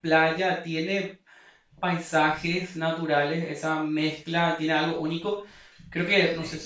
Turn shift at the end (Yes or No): No